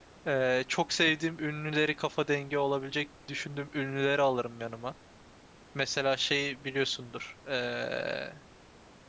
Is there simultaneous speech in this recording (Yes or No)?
No